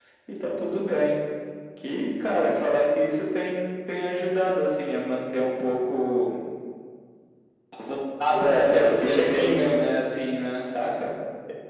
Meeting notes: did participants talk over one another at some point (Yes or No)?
Yes